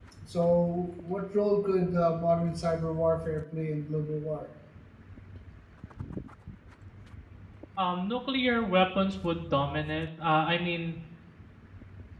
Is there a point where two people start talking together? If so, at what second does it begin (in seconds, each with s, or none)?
none